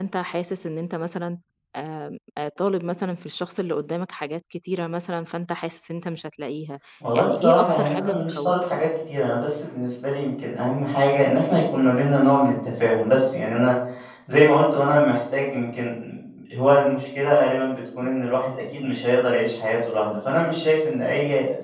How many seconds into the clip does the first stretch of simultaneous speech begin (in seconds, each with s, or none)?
7.0 s